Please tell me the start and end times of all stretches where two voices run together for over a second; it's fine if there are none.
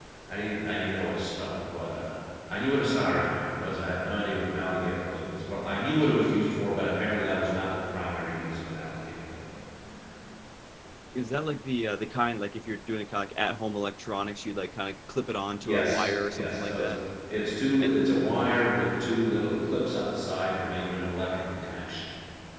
15.6-16.9

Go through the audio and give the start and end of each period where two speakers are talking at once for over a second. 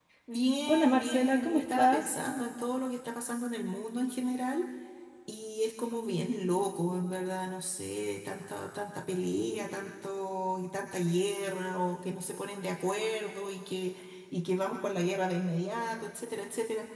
0.7-2.0

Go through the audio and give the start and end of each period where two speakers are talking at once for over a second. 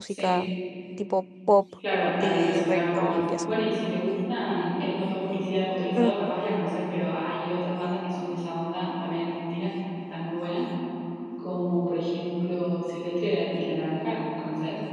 2.2-3.5

